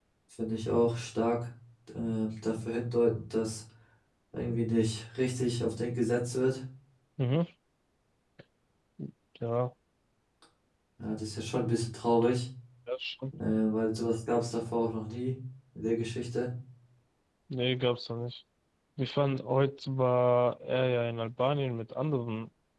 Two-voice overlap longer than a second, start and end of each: none

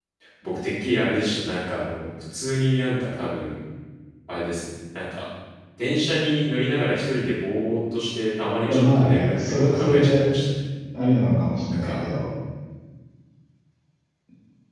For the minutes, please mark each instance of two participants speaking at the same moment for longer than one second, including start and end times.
8.6-10.3

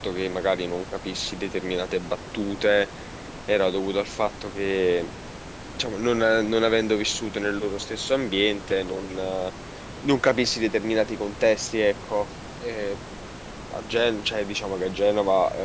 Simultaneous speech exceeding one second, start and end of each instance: none

